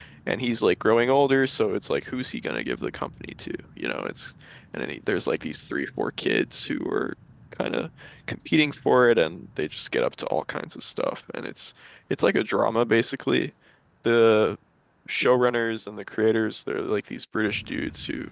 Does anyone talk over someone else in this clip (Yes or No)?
No